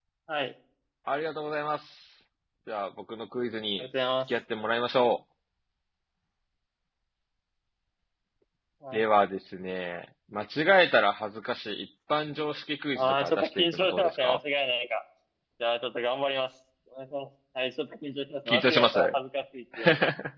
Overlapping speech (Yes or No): Yes